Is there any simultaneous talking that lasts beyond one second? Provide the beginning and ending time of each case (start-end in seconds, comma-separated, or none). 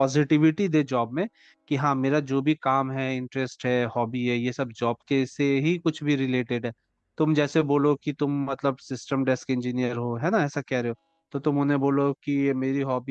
none